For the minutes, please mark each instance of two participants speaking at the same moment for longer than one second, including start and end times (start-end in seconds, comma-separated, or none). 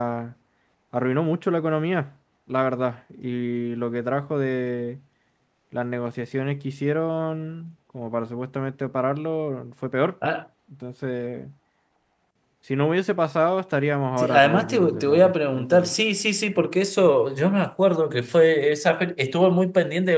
14.2-15.9